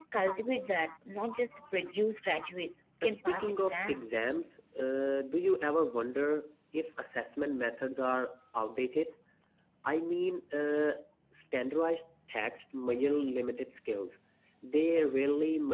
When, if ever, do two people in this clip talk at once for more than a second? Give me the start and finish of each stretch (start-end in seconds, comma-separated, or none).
3.0-4.3